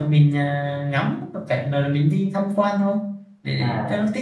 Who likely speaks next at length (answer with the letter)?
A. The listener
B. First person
A